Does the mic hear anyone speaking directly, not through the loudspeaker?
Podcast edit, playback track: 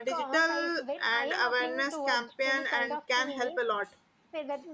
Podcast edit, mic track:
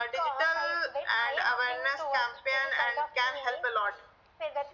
No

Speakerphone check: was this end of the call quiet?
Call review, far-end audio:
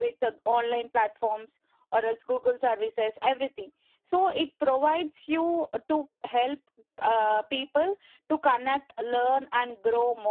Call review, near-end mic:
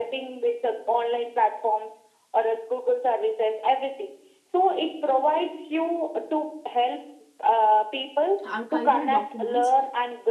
No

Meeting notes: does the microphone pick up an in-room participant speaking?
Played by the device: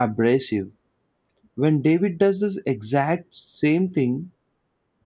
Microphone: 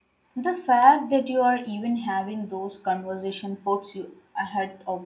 Yes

